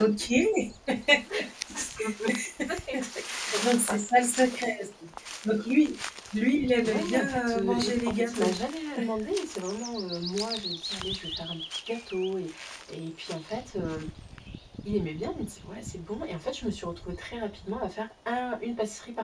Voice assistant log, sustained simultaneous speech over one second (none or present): present